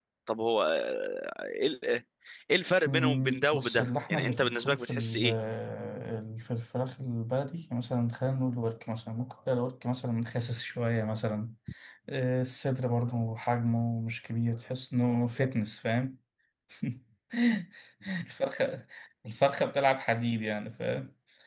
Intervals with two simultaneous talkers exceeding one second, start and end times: 2.8-5.3

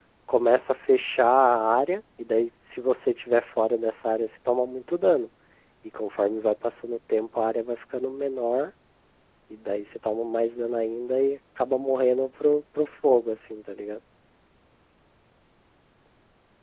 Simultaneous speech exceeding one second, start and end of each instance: none

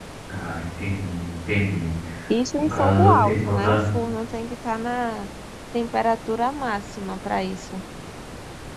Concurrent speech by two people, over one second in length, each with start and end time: 2.6-3.8

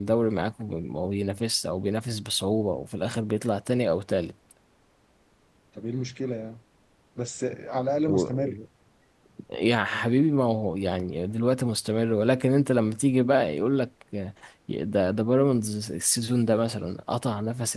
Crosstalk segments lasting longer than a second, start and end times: none

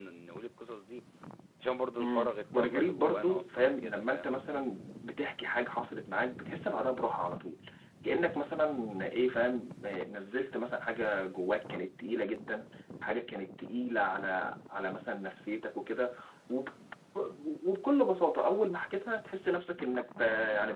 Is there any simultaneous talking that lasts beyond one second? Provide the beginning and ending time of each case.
2.0-4.4

